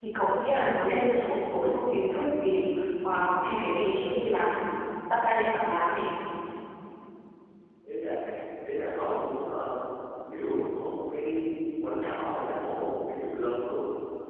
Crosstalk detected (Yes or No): No